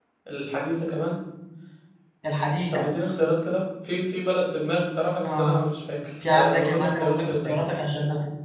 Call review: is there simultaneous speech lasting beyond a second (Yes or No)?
Yes